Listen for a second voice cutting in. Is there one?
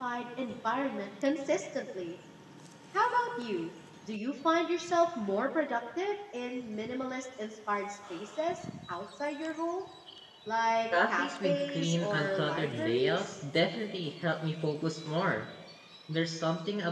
Yes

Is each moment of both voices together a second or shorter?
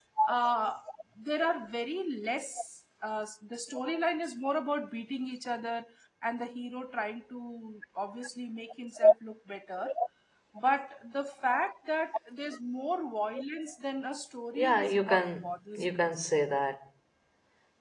No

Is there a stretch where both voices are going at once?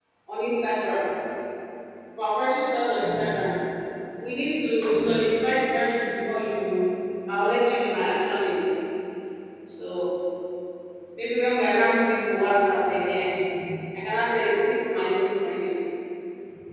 No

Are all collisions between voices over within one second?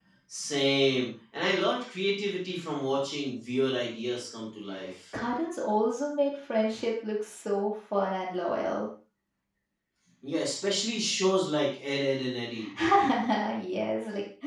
Yes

